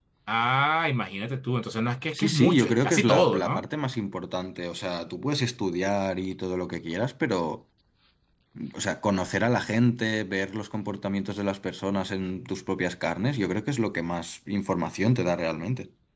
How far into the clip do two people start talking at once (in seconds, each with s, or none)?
2.1 s